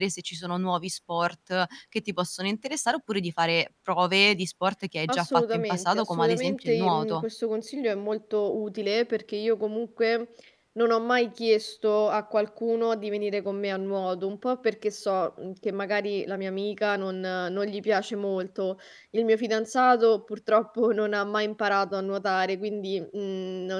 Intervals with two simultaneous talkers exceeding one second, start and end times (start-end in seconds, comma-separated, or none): 5.1-7.2